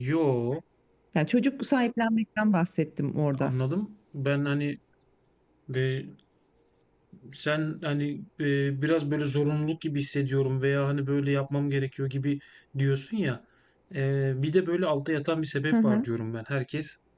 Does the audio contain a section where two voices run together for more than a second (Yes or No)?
No